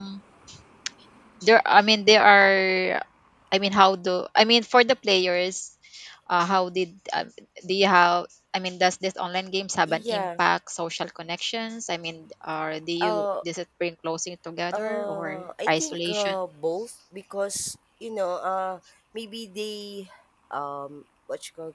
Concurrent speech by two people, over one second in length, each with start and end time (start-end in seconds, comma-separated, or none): 14.7-16.3